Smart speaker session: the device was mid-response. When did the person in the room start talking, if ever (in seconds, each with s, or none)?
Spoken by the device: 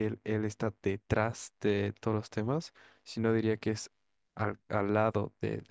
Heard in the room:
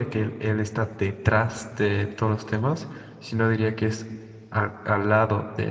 none